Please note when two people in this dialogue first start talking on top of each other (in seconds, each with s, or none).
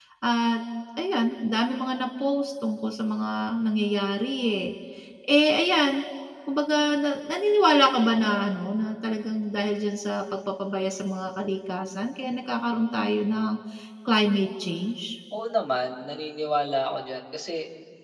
none